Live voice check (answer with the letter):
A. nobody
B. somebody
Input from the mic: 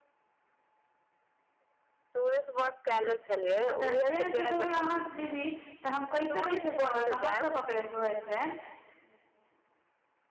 B